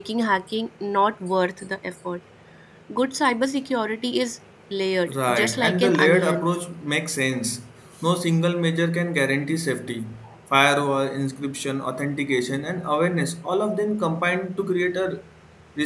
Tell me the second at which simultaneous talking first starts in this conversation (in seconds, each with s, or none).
5.1 s